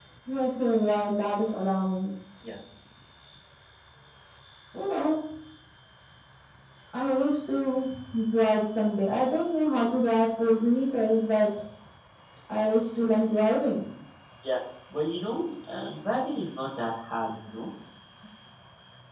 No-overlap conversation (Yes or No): Yes